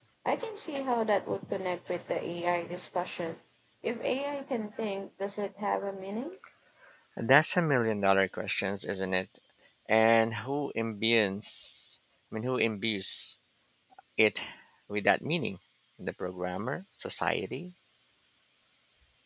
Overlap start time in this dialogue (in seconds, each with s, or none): none